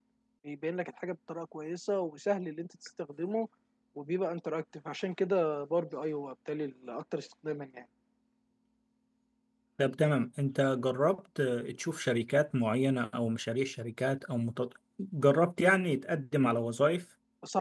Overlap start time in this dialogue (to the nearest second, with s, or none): none